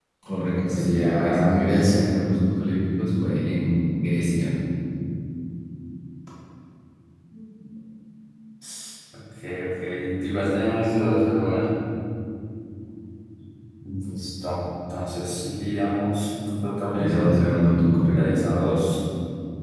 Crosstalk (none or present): present